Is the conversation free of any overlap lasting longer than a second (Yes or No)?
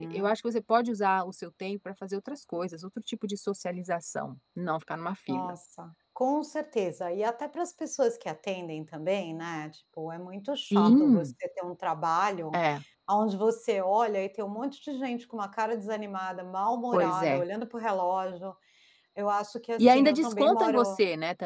No